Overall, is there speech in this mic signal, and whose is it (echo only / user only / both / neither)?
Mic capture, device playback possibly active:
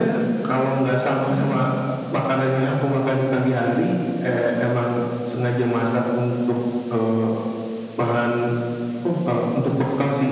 echo only